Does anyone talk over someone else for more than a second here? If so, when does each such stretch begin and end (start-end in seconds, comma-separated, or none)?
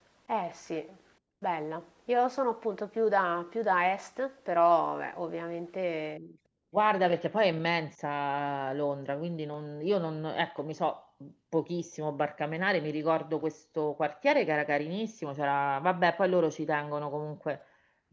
none